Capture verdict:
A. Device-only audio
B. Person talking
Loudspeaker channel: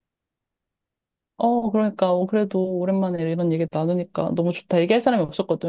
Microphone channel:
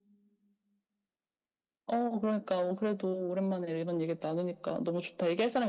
A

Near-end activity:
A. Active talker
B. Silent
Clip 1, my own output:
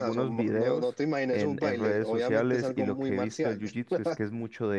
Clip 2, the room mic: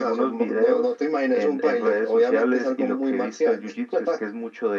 B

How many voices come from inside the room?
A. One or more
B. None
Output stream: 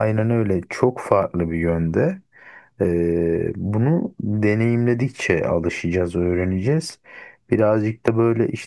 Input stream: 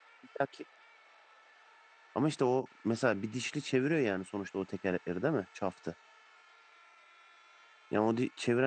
A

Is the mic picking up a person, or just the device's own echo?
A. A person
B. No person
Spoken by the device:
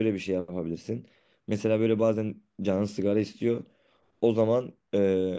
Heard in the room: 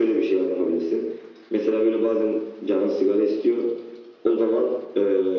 B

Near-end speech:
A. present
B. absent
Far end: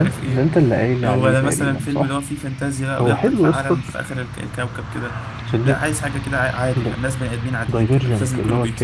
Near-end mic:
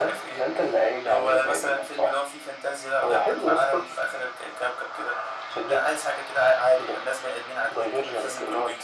B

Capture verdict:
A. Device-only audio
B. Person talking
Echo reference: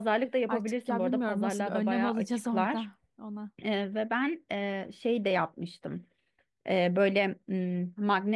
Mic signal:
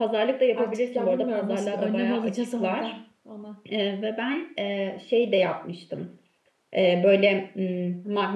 A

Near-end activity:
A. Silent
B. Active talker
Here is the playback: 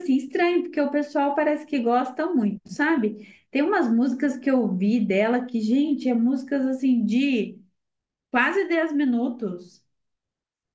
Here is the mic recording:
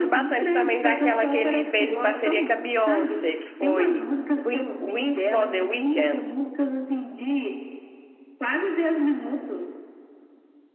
B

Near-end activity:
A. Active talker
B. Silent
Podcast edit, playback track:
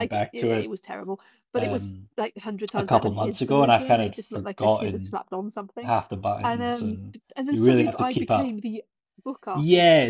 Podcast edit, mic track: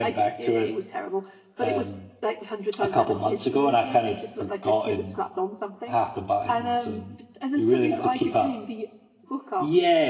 B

